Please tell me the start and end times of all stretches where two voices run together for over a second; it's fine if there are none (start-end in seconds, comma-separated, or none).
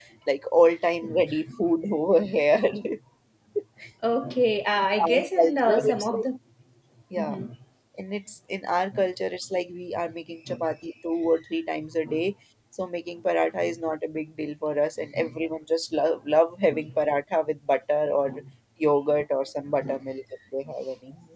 5.0-6.3